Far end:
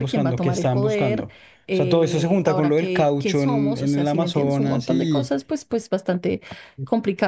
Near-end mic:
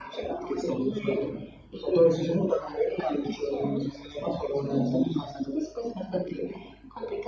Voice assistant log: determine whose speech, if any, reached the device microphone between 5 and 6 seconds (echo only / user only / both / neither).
echo only